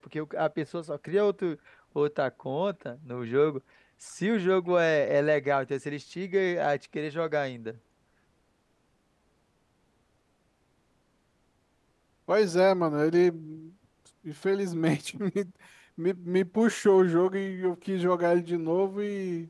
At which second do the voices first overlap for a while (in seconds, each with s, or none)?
none